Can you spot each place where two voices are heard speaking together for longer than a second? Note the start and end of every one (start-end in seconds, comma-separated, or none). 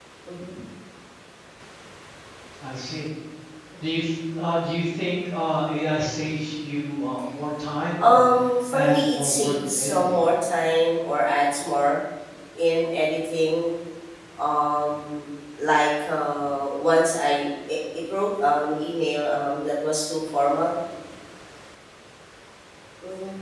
8.7-10.2